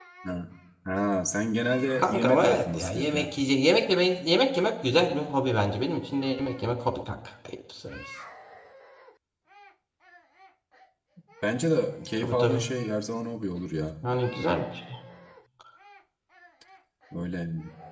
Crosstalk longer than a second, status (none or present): present